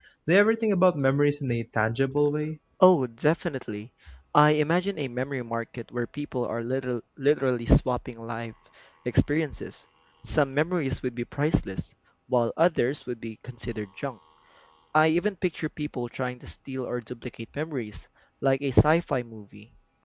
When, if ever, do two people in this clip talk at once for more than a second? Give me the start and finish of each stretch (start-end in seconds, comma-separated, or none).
none